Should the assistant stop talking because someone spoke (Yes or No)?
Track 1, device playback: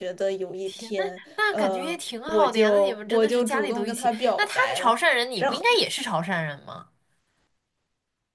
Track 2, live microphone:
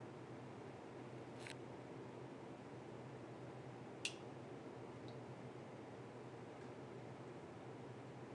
No